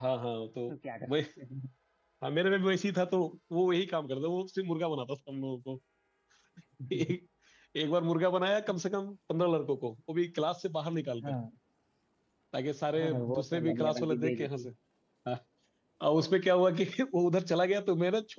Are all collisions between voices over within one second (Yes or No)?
No